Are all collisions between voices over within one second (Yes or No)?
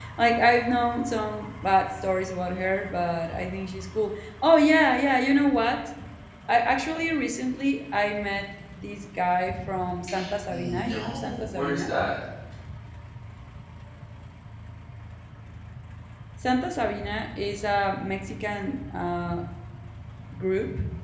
No